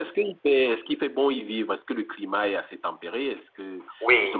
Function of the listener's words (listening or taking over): taking over